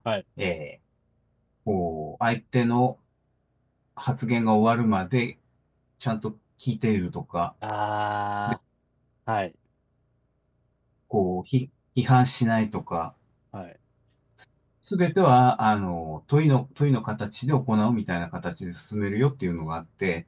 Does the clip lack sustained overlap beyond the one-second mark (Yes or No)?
Yes